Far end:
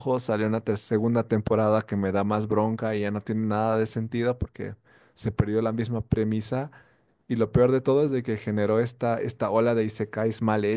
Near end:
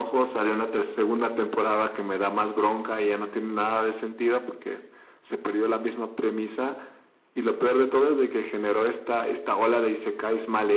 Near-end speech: none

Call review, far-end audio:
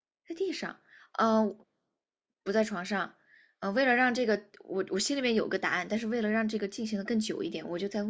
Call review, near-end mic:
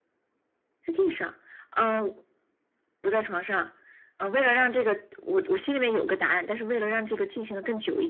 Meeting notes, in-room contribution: none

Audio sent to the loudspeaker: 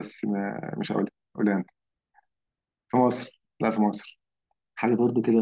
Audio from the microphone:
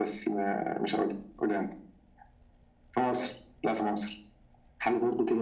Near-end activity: none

